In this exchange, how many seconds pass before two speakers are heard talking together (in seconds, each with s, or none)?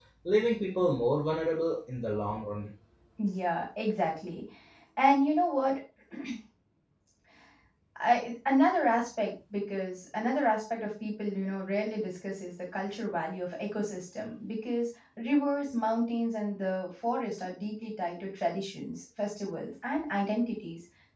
none